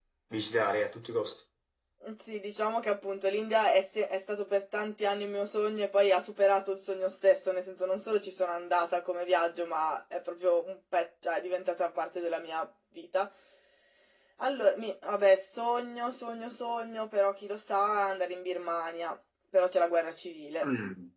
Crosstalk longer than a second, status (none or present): none